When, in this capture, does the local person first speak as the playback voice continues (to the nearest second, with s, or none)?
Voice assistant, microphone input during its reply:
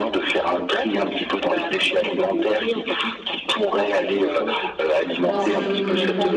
5 s